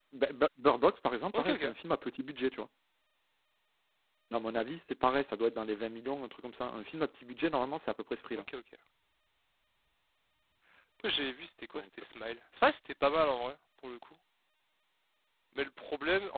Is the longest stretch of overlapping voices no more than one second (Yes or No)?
Yes